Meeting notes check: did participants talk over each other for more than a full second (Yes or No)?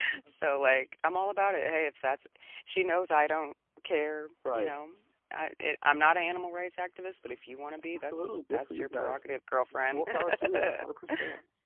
Yes